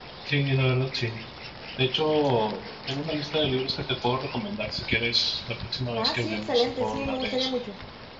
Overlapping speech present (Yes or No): Yes